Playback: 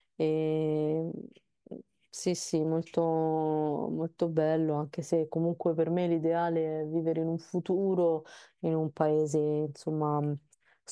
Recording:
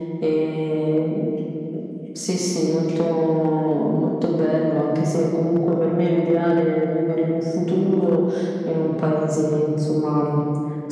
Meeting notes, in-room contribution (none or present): none